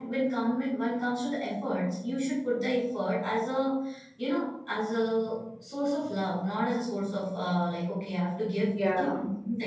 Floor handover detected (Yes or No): No